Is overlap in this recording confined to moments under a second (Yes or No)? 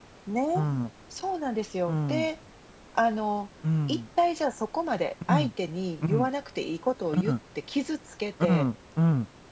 Yes